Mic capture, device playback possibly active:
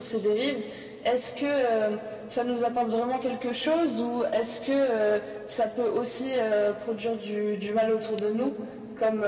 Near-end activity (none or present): none